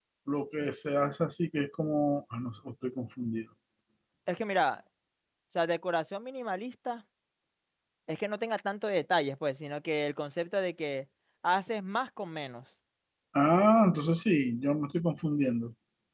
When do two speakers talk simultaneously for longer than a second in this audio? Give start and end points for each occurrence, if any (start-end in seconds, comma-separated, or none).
none